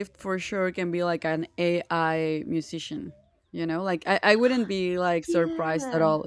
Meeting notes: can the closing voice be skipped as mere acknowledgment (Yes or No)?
Yes